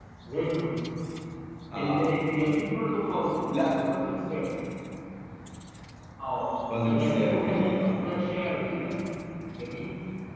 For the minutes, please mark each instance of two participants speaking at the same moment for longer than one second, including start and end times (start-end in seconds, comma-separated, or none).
6.8-8.1